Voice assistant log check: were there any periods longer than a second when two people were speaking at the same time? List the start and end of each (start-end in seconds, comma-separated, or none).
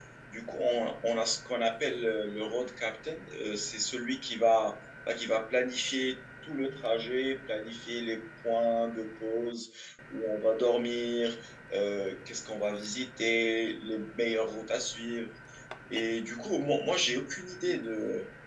none